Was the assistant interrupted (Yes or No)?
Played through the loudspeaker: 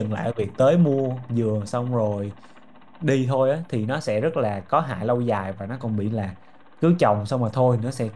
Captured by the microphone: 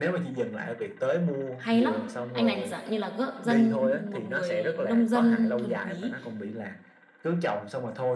Yes